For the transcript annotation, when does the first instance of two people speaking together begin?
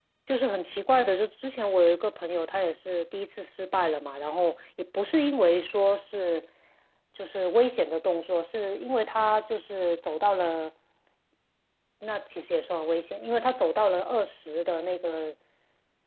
none

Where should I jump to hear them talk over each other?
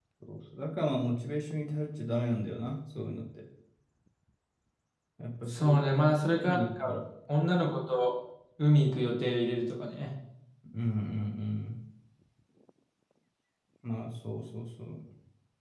5.5 s

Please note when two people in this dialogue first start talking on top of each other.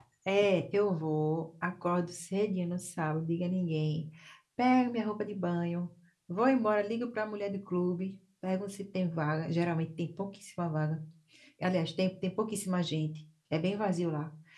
none

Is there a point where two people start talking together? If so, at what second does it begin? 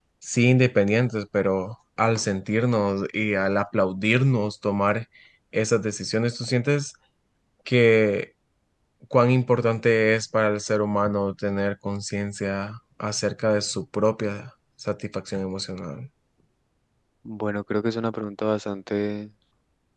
none

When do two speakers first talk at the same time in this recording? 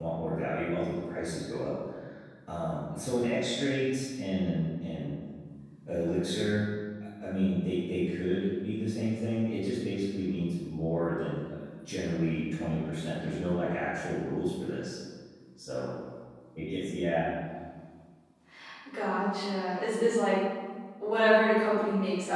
none

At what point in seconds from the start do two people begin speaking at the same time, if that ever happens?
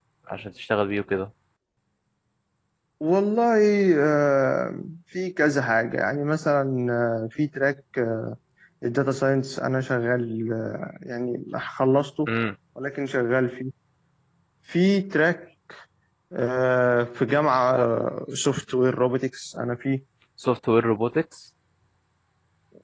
none

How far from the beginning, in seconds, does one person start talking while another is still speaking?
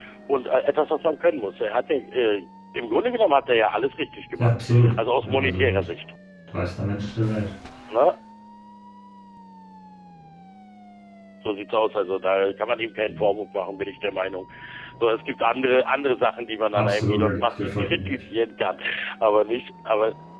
4.4 s

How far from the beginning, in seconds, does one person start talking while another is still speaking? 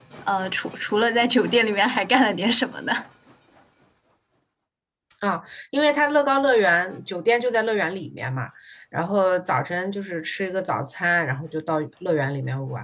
none

